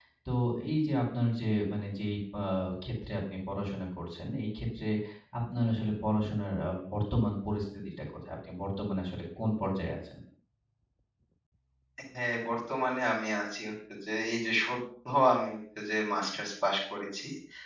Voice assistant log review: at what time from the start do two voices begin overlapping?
none

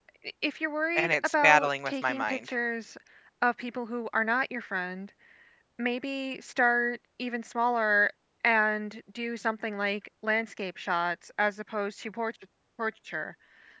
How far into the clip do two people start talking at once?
1.0 s

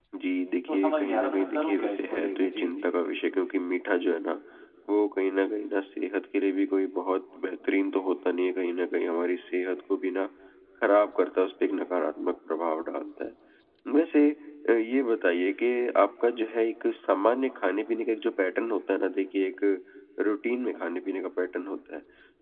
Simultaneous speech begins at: 0.7 s

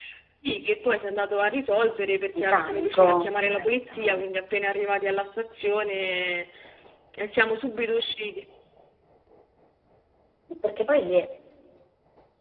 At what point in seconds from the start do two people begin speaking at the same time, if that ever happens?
2.3 s

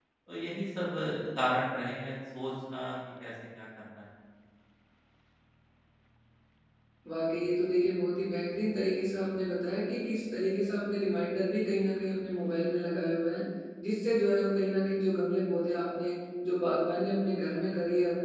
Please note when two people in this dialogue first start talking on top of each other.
none

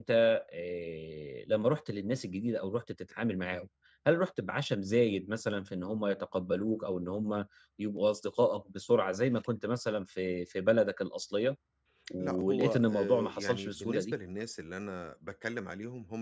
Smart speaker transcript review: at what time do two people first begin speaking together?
12.2 s

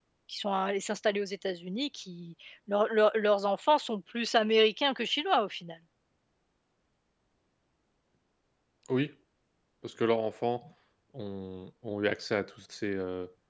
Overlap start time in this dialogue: none

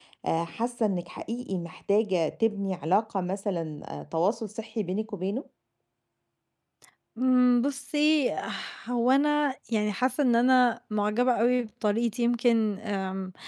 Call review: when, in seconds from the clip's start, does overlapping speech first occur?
none

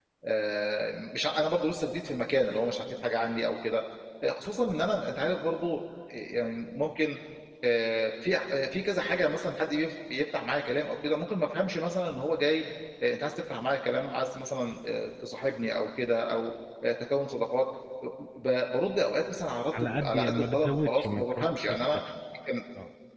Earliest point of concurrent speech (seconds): 19.7 s

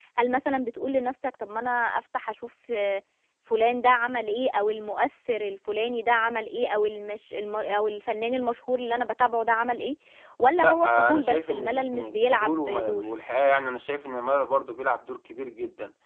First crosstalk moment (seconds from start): 10.6 s

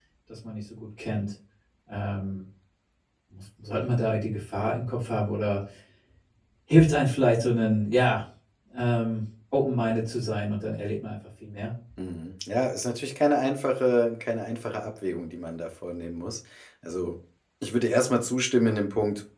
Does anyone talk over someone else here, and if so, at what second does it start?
none

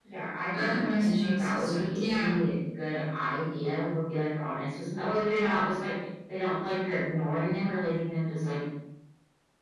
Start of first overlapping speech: 0.5 s

